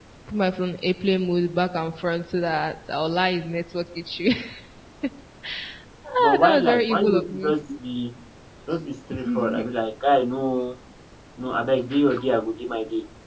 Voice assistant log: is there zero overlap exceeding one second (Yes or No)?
No